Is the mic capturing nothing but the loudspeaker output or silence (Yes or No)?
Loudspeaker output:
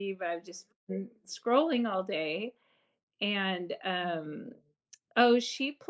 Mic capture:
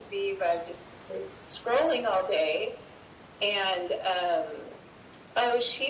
Yes